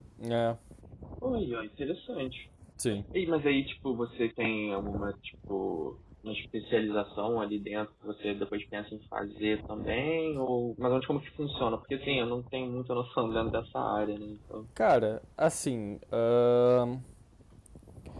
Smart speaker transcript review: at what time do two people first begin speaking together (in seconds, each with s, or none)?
none